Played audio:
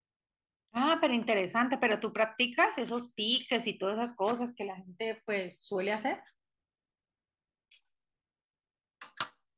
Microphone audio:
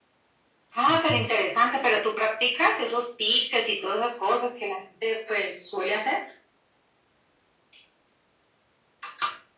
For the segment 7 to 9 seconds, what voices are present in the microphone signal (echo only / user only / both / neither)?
neither